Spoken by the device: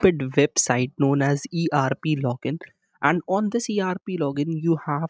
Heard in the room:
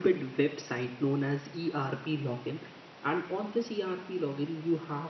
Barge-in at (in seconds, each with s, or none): none